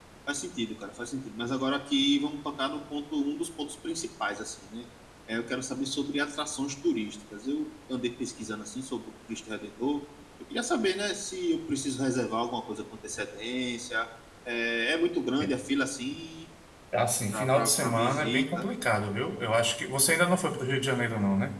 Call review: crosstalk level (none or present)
present